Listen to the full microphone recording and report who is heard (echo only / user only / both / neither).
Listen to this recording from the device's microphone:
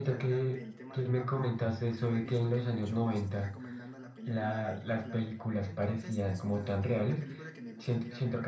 both